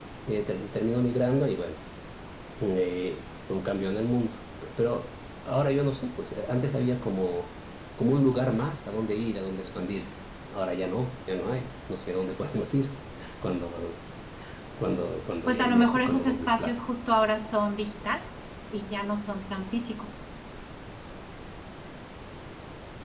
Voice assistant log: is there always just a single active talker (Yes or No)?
No